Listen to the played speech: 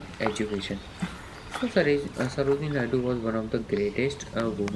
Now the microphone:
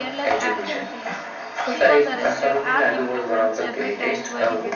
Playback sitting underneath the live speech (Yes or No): No